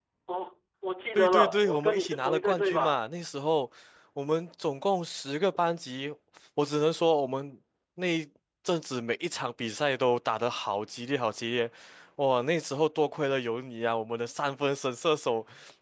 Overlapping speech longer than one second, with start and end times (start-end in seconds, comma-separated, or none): 1.1-3.0